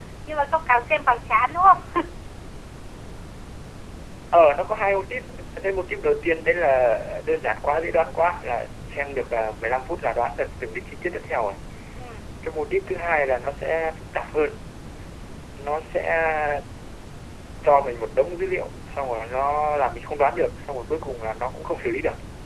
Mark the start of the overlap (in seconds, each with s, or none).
none